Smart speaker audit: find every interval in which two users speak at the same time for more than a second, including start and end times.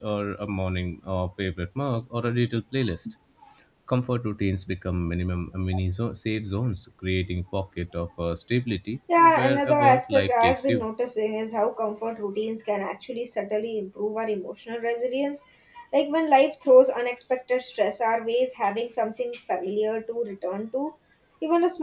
9.2-10.9

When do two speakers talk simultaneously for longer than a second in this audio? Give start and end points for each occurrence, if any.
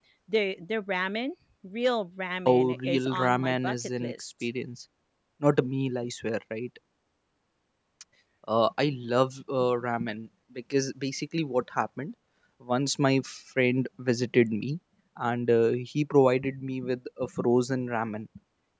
2.4-4.3

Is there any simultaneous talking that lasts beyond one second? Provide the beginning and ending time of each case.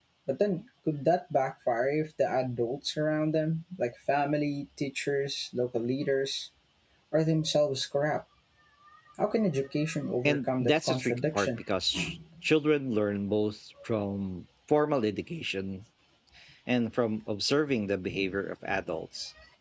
10.2-11.6

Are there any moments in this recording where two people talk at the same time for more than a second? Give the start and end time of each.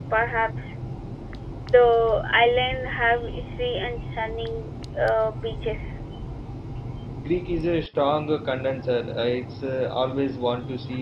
none

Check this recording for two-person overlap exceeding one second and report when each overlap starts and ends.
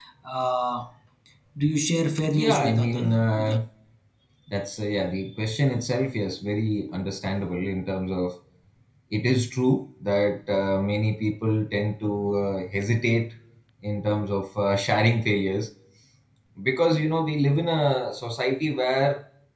2.3-3.6

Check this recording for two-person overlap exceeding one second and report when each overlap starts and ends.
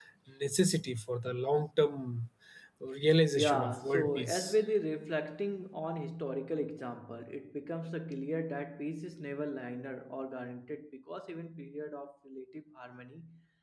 3.3-4.6

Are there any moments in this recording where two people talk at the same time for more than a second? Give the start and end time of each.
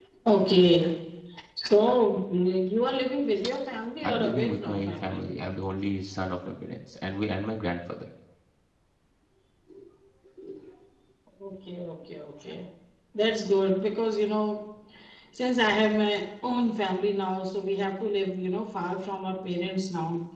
4.0-5.3

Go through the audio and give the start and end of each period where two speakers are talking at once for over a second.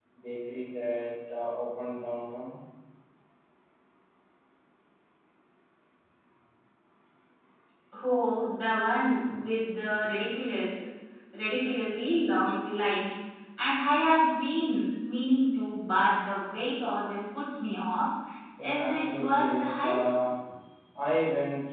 18.6-20.0

